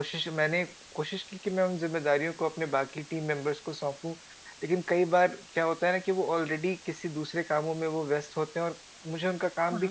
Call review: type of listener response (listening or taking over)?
listening